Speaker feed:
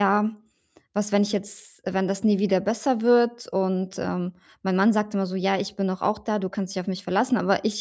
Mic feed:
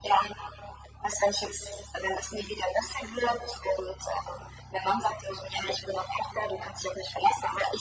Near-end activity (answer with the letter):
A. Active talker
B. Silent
B